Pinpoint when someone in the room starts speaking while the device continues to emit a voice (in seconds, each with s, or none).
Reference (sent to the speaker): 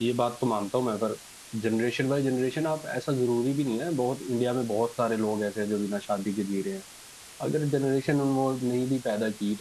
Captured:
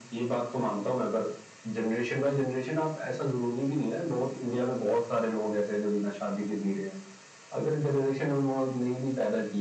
none